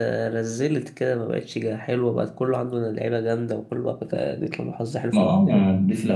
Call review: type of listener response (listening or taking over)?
taking over